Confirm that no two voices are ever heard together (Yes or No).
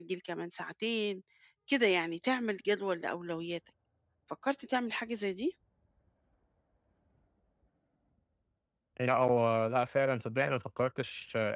Yes